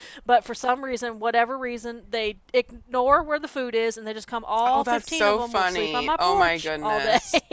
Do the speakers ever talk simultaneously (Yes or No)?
Yes